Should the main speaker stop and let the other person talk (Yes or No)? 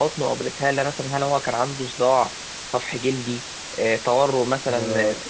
Yes